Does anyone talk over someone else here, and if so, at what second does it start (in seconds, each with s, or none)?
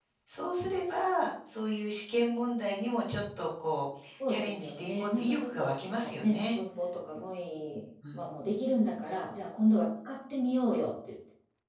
4.2 s